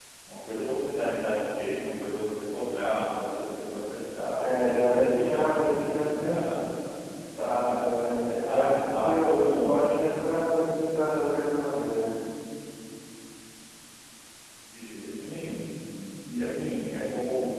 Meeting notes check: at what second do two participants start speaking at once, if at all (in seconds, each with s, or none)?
4.4 s